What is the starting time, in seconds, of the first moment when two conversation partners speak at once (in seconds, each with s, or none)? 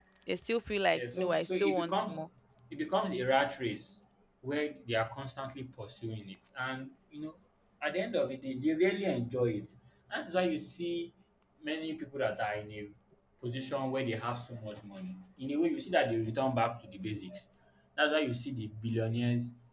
0.9 s